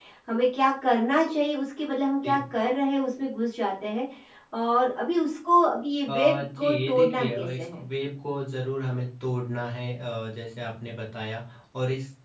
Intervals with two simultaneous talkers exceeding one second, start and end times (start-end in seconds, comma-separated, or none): 6.1-7.8